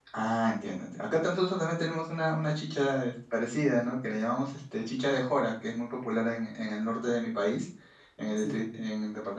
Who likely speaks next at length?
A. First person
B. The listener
A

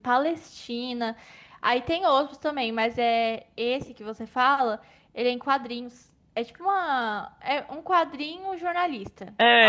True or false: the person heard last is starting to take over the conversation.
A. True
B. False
A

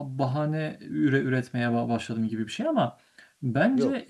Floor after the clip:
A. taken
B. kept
B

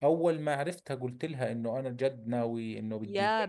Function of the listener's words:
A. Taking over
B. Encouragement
A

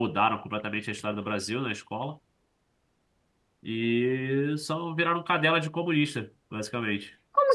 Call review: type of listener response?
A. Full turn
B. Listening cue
A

